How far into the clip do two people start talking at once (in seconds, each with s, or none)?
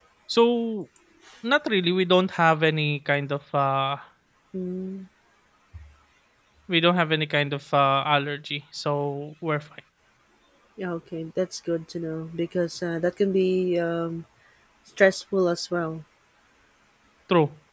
none